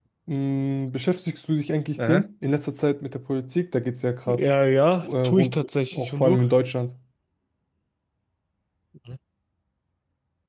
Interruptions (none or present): present